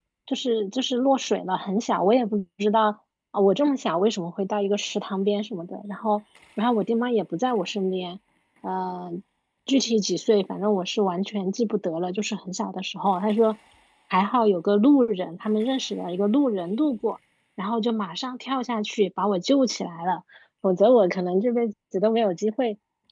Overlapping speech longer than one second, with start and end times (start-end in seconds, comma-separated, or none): none